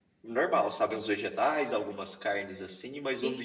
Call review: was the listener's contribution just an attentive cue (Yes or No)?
No